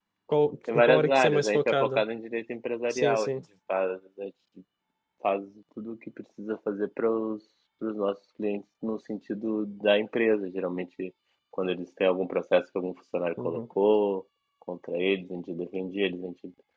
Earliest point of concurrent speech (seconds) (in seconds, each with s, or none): 0.7 s